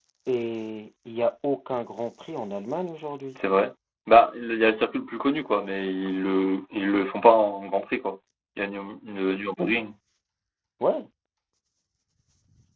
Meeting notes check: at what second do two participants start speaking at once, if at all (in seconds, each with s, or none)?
none